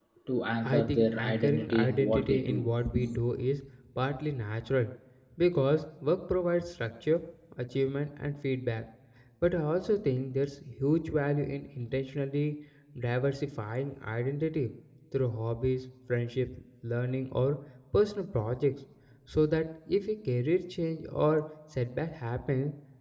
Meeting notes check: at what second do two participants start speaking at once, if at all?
0.6 s

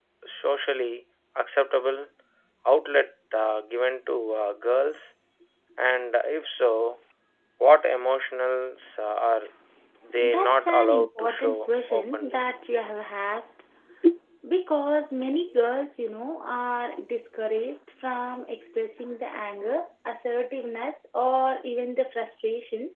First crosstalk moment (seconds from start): 10.2 s

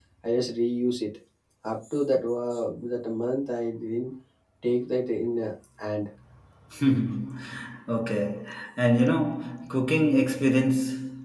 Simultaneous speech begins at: none

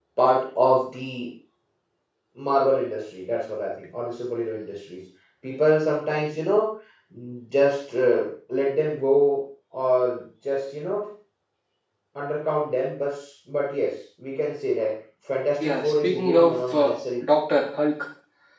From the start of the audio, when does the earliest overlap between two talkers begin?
15.6 s

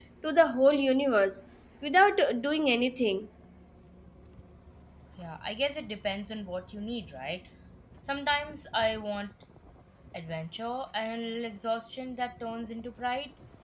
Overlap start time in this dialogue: none

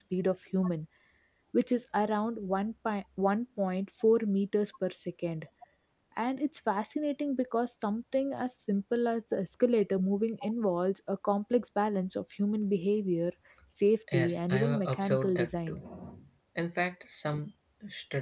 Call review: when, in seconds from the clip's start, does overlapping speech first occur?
14.1 s

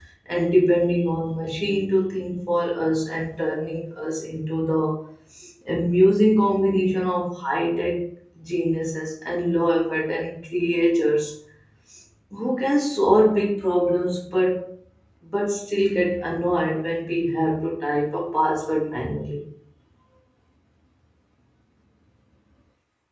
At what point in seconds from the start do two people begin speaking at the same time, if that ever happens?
none

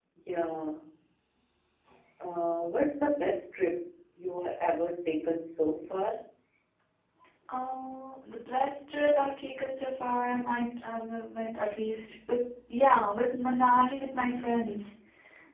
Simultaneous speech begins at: none

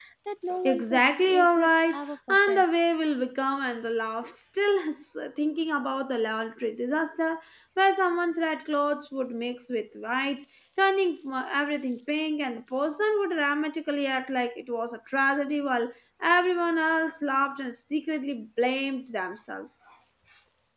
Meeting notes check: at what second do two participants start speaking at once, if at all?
0.7 s

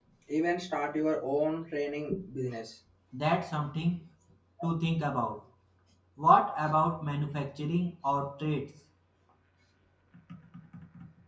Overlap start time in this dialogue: none

